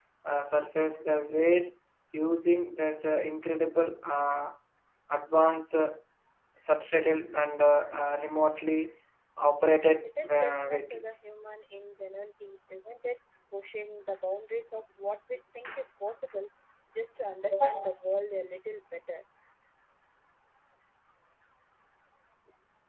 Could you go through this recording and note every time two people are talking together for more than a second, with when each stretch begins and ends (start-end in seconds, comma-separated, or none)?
10.0-11.4